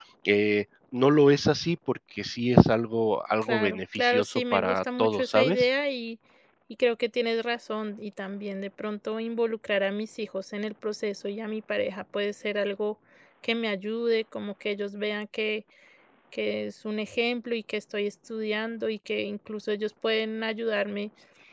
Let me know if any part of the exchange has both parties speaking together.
Yes, from 3.4 s

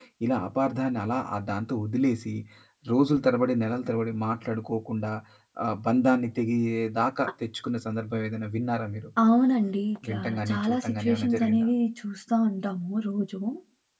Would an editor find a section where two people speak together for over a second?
Yes, from 10.1 s

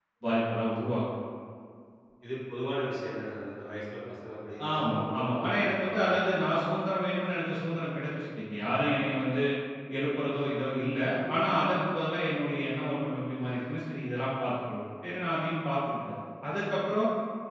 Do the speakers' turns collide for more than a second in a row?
Yes, from 4.7 s

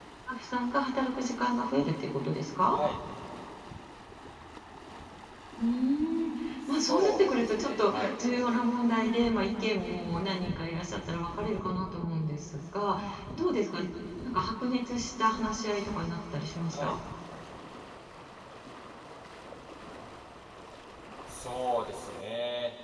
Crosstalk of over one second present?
Yes, from 6.7 s

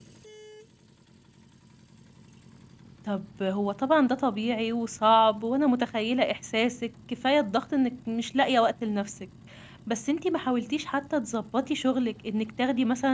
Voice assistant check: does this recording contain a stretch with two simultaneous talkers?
No

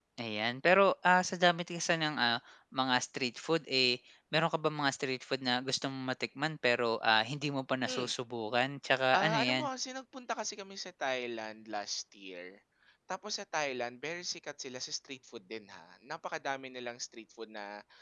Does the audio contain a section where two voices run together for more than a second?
No

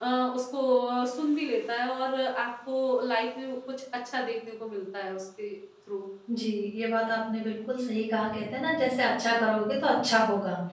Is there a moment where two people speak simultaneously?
No

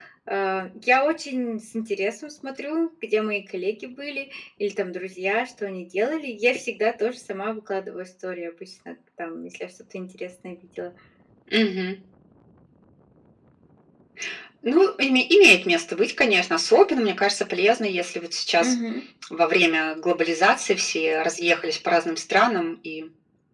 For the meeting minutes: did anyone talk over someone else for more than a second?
No

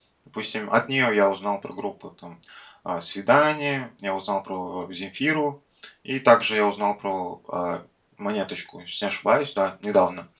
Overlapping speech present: No

